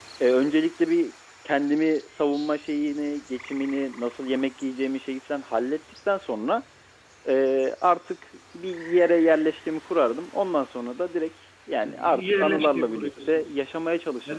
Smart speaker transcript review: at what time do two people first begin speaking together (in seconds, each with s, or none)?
11.8 s